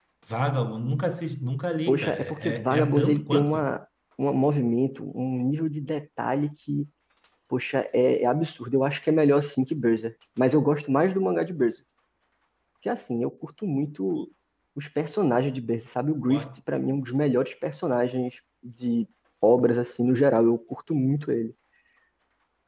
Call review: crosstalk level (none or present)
present